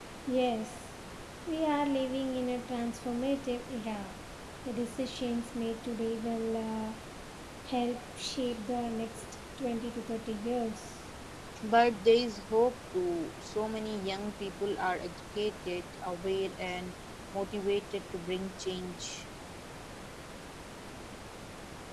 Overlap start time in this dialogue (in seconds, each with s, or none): none